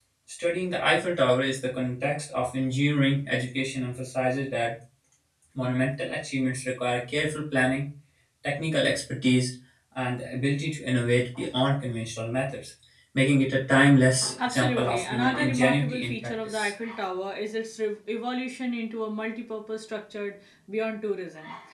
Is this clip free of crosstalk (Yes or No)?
No